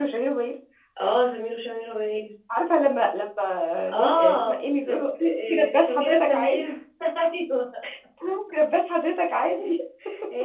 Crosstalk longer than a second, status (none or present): present